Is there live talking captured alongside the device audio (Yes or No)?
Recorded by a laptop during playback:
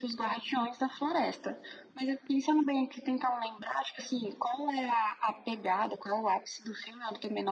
No